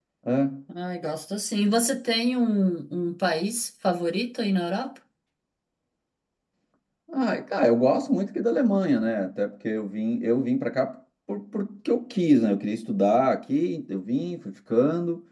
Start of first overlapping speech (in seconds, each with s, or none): none